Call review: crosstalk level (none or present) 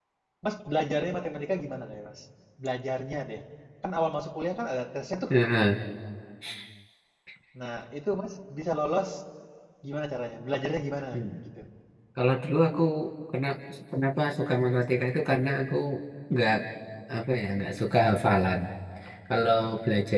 none